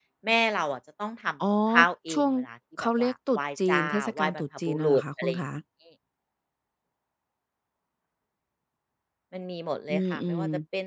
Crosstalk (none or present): present